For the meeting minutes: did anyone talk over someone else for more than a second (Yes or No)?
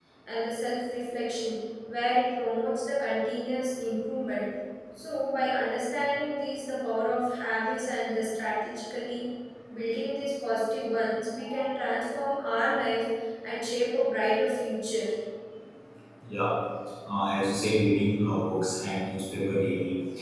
No